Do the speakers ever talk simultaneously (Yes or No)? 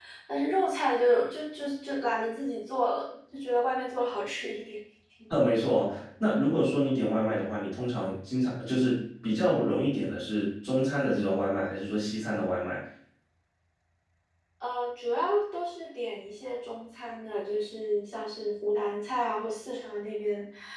No